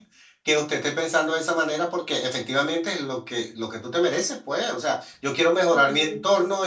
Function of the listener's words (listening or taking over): listening